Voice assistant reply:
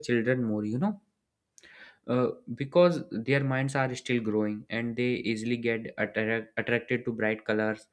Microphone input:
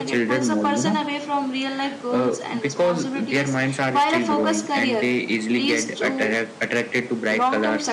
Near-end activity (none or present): present